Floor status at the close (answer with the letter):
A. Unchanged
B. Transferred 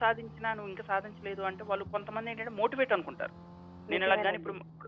A